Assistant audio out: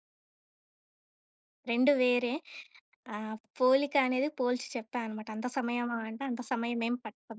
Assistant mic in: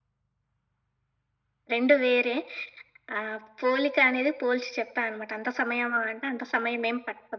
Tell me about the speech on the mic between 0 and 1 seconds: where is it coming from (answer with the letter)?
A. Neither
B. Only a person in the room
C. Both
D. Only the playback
A